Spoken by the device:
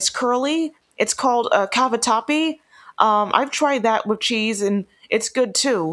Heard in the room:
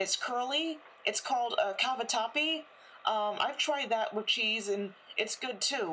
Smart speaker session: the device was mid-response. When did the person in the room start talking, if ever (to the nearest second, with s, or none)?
none